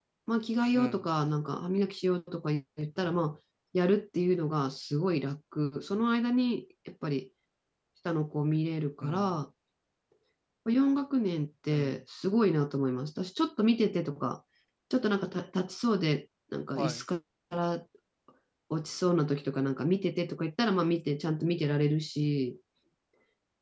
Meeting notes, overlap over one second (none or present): none